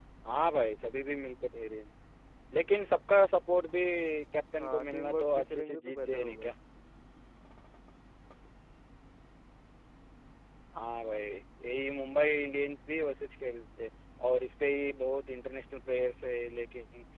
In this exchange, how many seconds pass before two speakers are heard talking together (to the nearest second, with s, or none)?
5 s